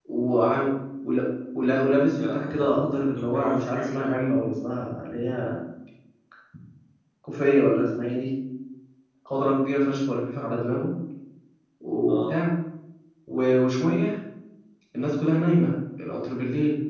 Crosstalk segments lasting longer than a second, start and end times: 2.2-4.1

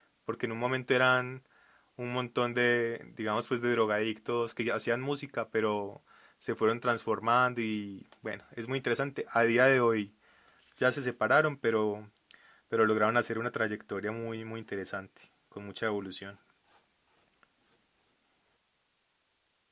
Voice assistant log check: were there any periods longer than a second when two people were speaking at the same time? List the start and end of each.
none

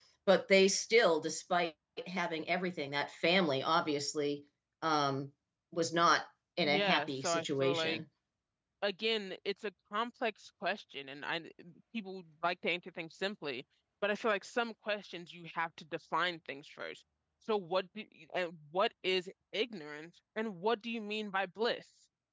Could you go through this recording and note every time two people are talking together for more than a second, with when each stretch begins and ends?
6.6-8.0

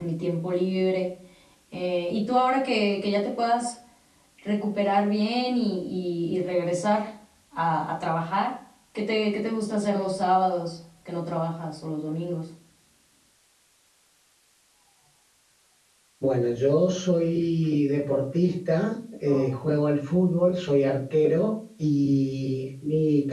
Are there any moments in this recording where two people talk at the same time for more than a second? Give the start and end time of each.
none

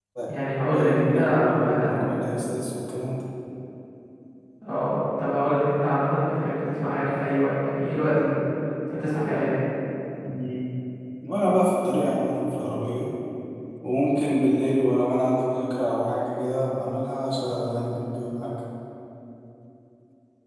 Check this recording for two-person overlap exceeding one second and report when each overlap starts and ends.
0.7-2.0

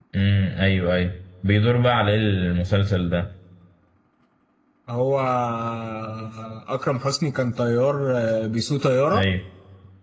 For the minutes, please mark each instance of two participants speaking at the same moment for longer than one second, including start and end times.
none

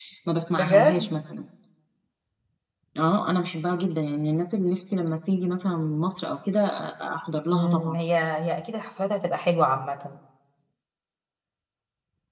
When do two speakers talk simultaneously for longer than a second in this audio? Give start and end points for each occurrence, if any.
none

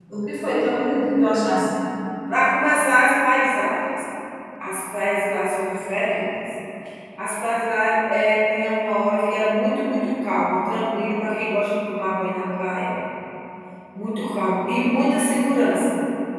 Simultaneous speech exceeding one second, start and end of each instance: none

